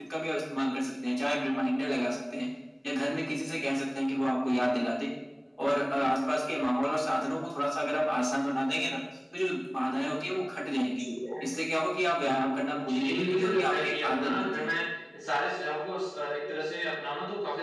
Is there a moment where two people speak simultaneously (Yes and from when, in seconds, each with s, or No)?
Yes, from 12.9 s